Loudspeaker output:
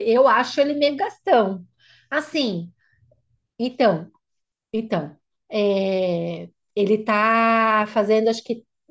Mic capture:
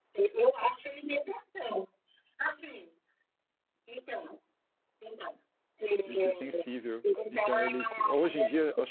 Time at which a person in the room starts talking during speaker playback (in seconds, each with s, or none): 6.0 s